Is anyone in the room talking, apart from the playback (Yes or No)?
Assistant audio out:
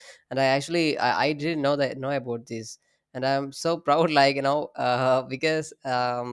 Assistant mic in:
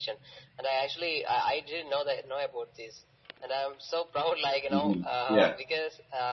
Yes